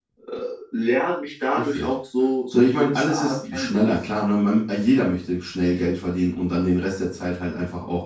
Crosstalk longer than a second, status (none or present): present